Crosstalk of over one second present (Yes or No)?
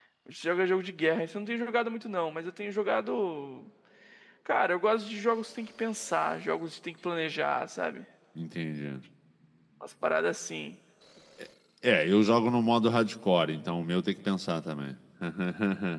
No